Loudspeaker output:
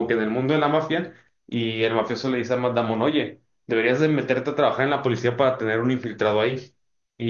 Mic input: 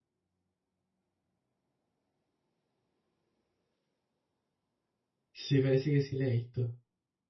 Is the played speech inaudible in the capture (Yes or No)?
Yes